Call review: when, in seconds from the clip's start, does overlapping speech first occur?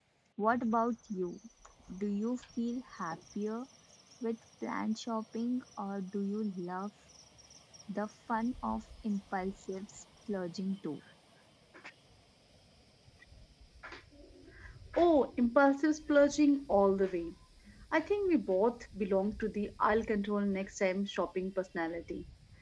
none

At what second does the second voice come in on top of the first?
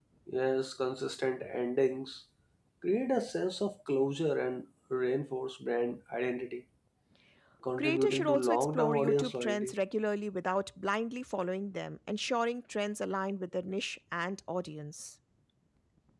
7.8 s

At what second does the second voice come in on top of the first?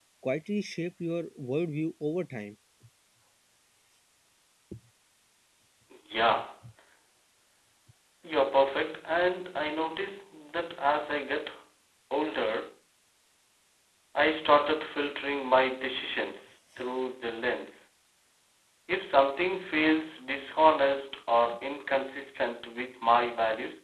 none

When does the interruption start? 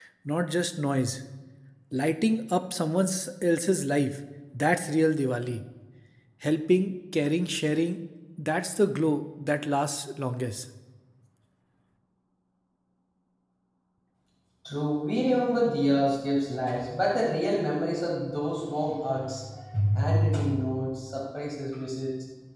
none

